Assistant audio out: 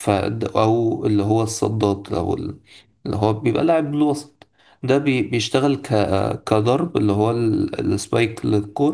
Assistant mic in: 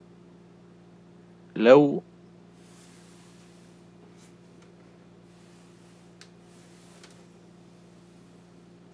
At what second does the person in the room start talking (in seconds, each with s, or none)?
1.6 s